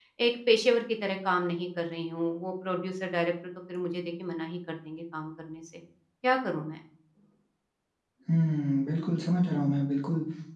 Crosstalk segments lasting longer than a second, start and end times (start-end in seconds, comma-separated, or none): none